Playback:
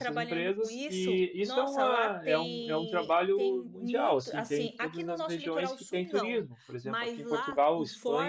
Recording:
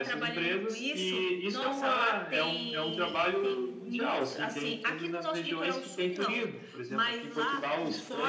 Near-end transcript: none

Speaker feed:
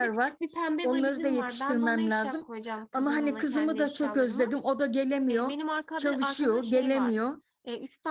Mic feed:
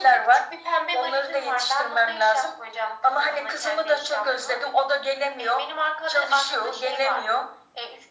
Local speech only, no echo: none

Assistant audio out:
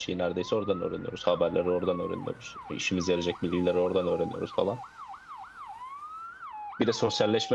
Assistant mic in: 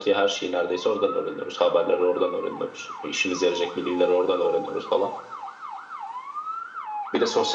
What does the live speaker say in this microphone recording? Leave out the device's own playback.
none

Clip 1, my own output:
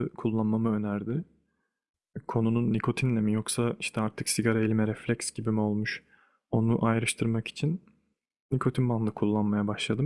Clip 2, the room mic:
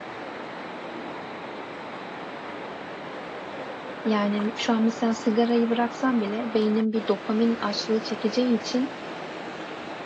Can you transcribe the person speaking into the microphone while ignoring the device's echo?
Yani şu an mesela sigarayı bıraksam bile beynim bir dopamin açlığı çekeceği için

